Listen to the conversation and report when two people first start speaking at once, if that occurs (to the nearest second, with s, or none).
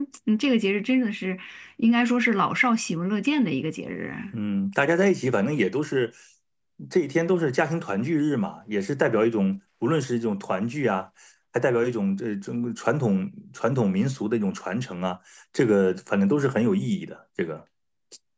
none